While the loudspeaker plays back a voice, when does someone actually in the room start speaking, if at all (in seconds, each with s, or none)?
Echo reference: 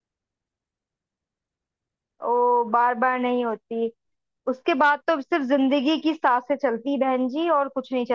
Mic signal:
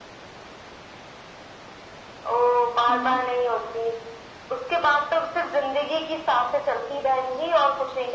2.9 s